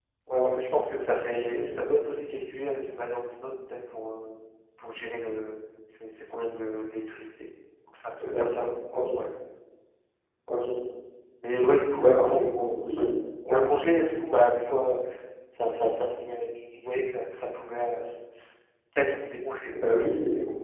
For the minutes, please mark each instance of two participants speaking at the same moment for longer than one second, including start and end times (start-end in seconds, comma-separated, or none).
none